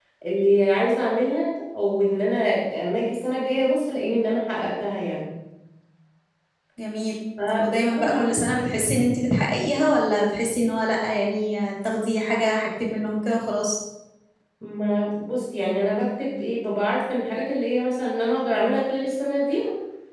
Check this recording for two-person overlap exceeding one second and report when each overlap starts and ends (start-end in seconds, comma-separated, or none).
7.6-8.9